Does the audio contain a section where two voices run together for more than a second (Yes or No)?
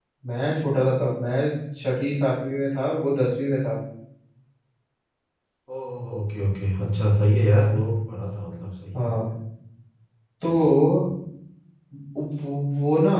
No